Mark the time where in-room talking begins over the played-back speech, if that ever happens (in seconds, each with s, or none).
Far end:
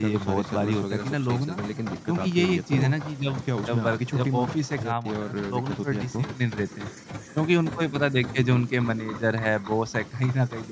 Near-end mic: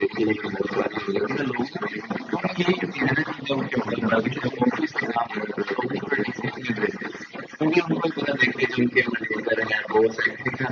3.8 s